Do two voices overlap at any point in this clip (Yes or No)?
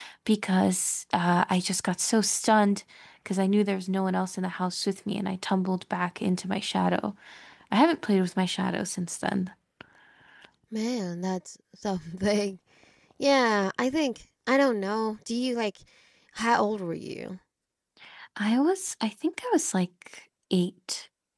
No